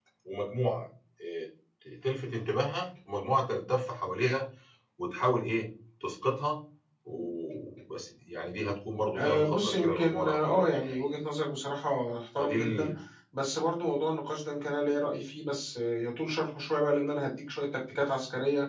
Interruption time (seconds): 9.2 s

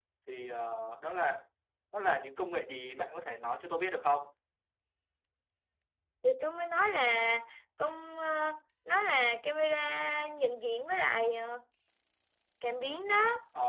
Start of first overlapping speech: none

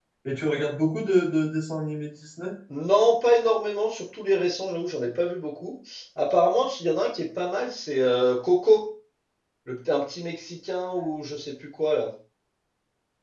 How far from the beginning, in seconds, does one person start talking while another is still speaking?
none

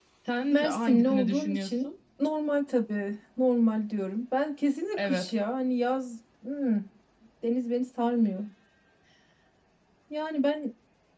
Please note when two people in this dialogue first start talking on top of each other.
0.5 s

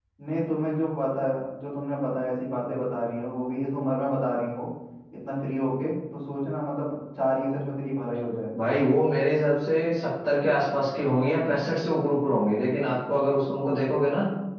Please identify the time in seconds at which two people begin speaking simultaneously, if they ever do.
none

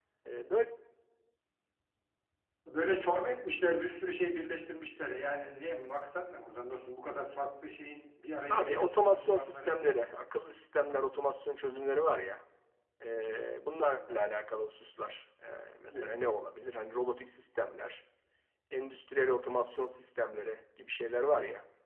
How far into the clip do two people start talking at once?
8.5 s

